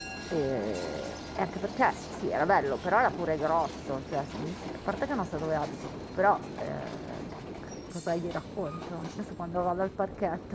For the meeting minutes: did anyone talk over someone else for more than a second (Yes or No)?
No